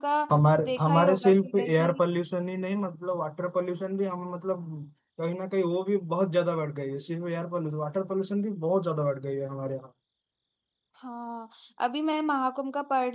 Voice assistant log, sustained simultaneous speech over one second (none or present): present